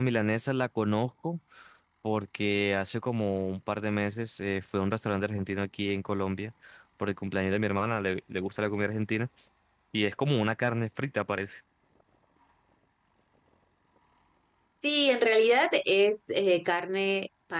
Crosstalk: none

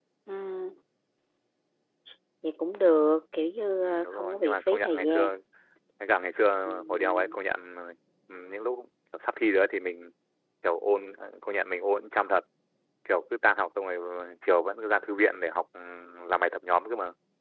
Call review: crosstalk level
present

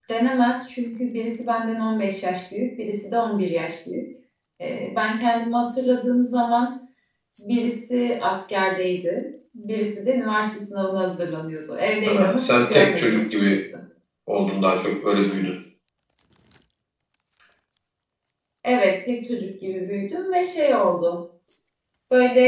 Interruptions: present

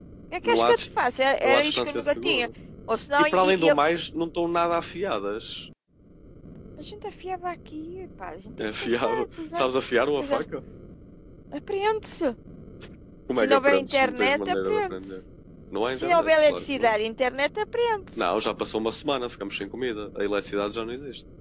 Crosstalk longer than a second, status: present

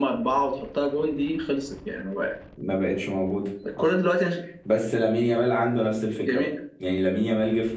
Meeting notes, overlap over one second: none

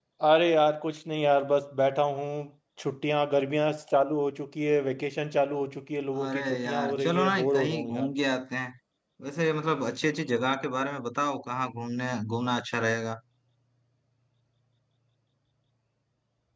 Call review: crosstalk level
present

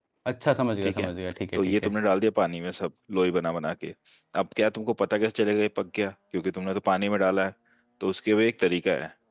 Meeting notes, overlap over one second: none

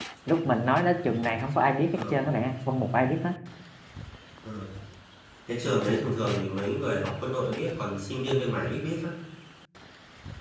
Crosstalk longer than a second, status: none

